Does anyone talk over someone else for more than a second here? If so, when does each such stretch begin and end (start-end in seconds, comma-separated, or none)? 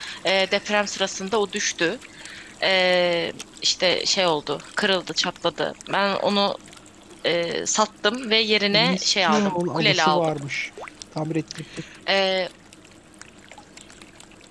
8.7-10.3